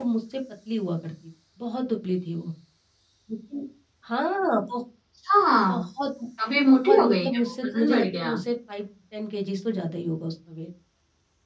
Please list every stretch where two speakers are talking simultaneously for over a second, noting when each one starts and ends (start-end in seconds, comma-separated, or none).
6.6-8.3